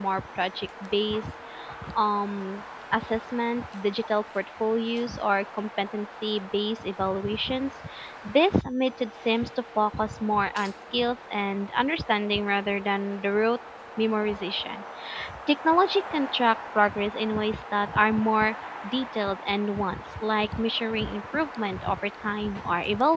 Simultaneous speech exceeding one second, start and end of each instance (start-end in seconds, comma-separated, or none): none